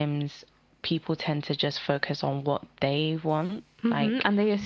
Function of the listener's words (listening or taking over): taking over